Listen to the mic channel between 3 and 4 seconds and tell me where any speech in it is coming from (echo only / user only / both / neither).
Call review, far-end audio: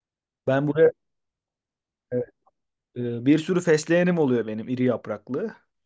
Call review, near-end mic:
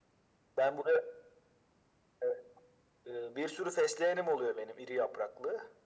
echo only